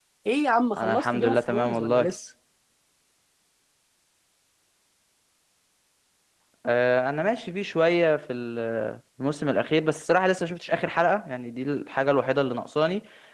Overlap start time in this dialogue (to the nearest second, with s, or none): 1 s